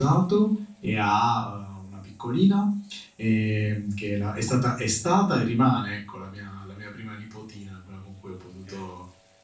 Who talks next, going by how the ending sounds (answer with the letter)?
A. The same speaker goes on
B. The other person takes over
A